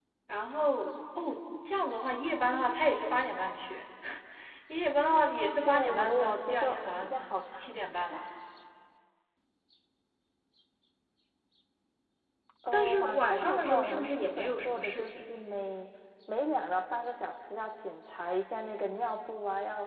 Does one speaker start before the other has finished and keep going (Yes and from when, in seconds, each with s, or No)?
Yes, from 5.7 s